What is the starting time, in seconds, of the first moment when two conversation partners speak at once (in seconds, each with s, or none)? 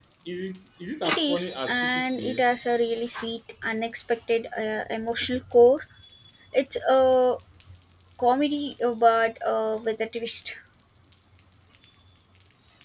1.0 s